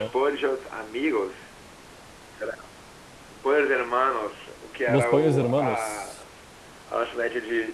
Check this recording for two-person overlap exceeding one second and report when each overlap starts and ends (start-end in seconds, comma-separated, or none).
4.9-6.1